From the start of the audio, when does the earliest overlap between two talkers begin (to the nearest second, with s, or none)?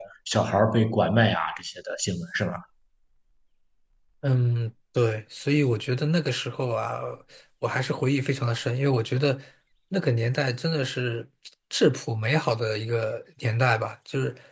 none